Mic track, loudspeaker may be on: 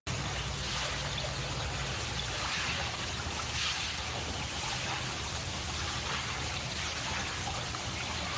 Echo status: none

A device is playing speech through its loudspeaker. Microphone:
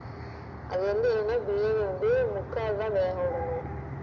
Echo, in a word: present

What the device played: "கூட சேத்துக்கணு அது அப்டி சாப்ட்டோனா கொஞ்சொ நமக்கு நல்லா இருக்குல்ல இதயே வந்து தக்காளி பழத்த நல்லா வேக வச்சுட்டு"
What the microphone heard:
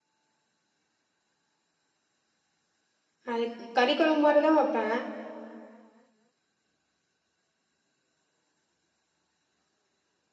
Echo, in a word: none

